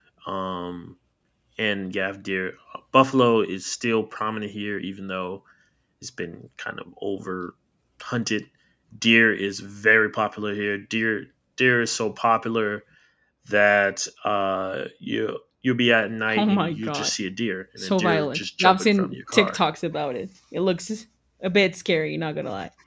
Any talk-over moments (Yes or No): Yes